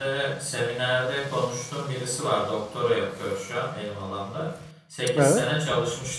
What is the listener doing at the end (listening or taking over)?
listening